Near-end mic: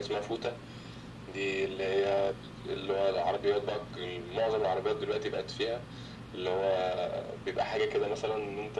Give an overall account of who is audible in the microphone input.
echo only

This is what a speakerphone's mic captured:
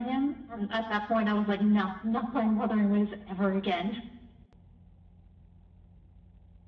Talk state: echo only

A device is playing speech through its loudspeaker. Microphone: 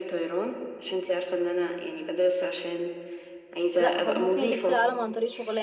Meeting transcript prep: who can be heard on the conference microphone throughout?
both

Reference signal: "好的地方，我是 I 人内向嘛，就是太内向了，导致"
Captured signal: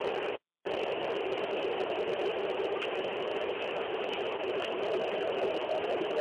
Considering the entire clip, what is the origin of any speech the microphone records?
neither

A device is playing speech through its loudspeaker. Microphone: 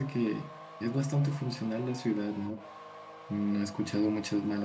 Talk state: user only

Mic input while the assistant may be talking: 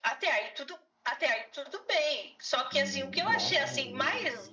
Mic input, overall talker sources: both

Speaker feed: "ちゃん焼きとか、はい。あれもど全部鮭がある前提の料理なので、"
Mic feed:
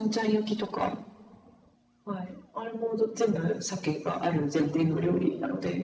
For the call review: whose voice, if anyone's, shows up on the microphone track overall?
echo only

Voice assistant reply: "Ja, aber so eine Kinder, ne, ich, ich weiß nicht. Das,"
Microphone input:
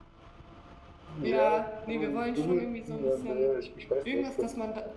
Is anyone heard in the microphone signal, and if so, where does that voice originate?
both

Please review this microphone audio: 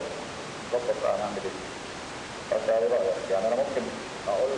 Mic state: echo only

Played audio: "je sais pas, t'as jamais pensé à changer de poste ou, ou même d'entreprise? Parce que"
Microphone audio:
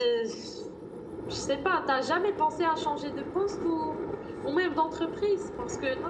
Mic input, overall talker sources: echo only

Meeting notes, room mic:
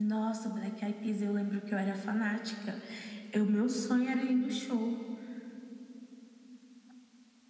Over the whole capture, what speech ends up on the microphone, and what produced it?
echo only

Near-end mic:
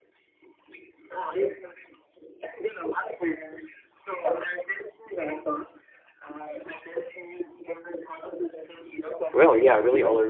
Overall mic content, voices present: both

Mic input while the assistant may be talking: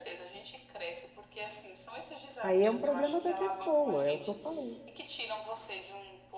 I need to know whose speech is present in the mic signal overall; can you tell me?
both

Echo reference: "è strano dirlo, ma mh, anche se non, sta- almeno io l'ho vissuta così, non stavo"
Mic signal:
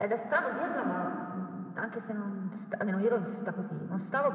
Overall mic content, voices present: echo only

